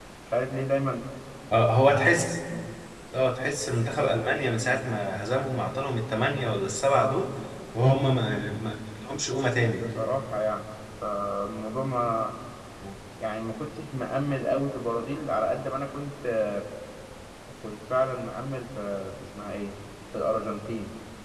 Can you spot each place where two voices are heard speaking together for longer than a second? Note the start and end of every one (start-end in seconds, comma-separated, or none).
none